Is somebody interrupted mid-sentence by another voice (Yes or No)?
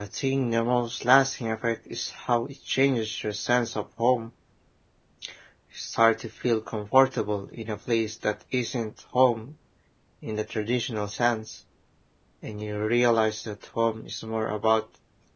No